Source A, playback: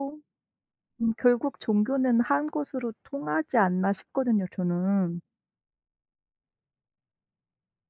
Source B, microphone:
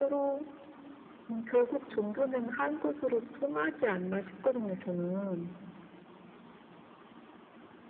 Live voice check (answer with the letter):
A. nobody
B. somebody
A